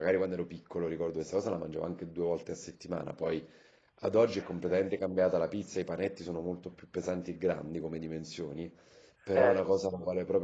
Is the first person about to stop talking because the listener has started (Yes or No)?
No